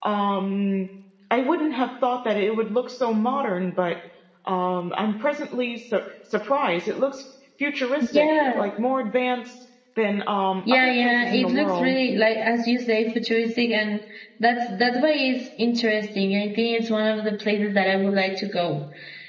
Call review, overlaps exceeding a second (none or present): present